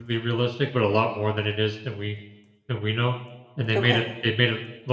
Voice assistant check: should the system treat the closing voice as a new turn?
No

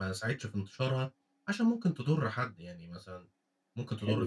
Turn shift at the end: No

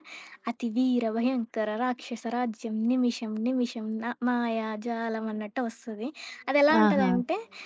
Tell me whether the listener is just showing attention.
Yes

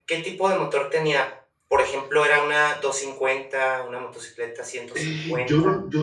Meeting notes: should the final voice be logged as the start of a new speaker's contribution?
Yes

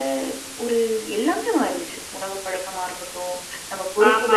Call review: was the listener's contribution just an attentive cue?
No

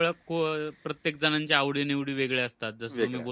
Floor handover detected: No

